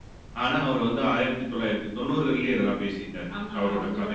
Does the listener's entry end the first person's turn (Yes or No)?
Yes